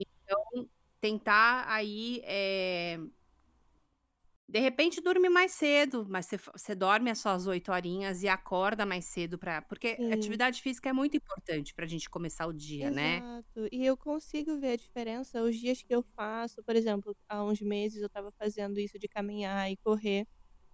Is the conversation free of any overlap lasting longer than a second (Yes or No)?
Yes